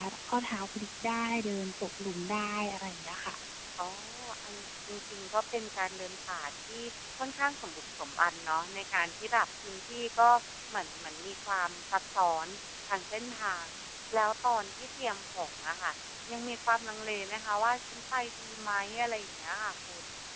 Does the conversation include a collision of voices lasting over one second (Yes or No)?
No